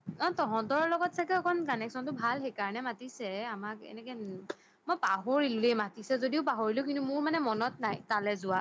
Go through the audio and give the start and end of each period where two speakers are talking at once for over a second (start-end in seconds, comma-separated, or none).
none